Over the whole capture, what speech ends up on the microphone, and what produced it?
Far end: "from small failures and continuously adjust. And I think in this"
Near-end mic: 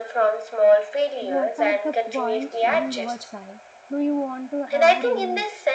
both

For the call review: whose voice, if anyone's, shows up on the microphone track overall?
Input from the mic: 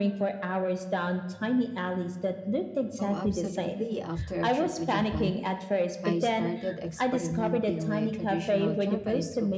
both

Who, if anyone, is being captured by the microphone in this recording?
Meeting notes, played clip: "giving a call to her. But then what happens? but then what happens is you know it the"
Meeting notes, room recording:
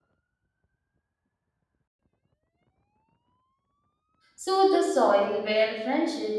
user only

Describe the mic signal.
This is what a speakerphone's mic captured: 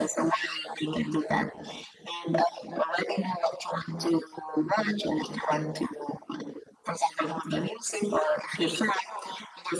echo only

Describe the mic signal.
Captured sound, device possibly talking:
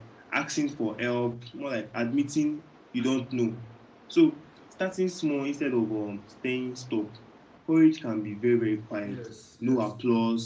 both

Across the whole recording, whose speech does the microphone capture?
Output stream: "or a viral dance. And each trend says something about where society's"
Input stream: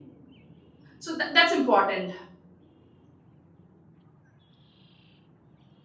user only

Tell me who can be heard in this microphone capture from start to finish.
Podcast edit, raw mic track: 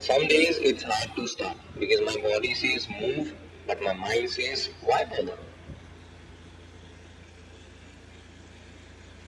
echo only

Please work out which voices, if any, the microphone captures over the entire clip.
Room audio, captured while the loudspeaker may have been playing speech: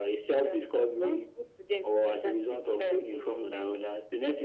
echo only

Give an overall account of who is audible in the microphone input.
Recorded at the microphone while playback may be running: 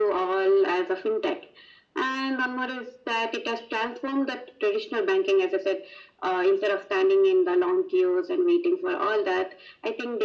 echo only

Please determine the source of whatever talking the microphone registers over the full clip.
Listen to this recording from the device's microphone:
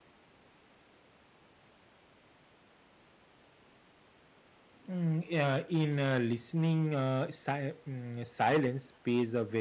user only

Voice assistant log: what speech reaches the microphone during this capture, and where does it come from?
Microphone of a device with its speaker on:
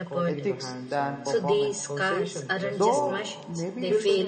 both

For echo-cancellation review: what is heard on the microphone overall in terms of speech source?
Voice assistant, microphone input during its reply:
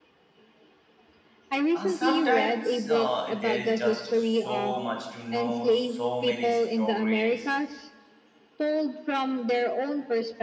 both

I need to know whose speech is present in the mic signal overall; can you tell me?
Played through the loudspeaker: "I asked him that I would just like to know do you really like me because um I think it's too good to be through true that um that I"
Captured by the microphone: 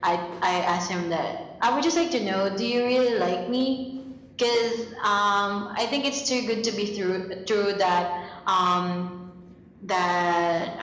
echo only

